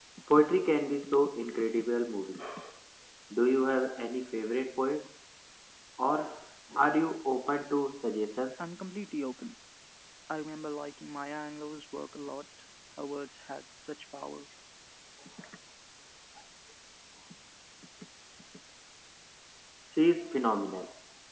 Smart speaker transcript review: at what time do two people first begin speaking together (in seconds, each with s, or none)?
none